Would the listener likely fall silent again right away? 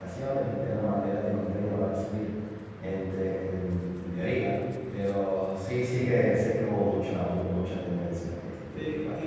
No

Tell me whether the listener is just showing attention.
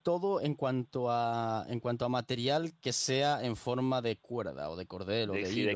No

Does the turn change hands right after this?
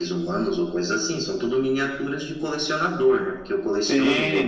Yes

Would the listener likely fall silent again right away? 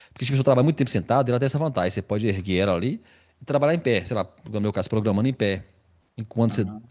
Yes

